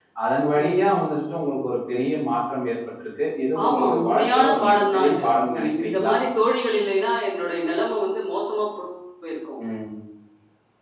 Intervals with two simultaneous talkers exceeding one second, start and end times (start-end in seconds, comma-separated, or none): 3.6-6.1